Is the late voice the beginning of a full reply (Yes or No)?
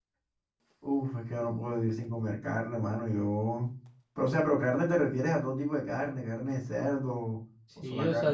Yes